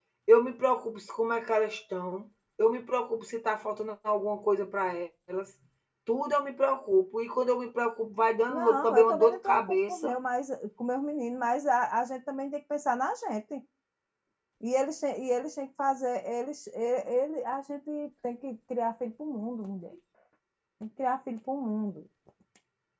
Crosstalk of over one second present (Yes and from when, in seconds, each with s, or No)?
Yes, from 8.5 s